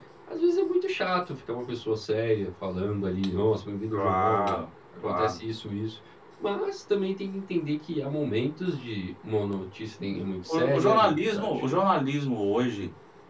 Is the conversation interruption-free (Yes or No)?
No